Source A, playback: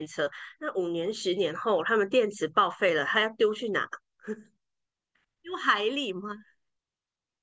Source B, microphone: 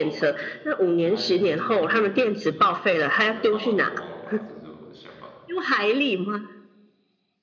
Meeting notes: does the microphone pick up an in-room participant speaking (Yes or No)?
Yes